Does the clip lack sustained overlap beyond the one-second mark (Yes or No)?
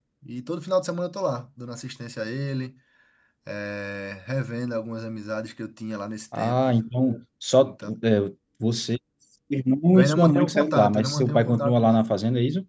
No